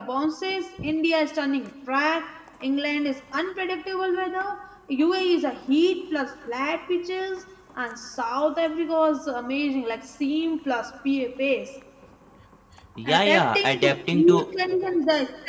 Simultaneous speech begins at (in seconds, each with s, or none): 13.1 s